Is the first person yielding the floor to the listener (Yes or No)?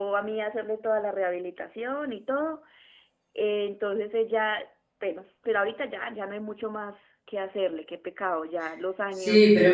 Yes